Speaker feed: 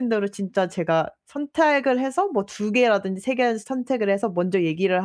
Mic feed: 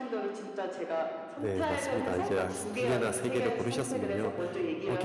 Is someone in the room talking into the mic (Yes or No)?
Yes